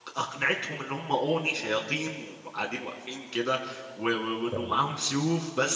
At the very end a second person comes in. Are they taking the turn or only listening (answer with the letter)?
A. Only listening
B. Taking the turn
A